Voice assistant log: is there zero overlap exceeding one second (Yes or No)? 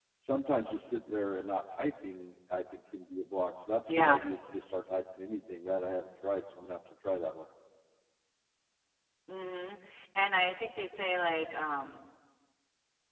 Yes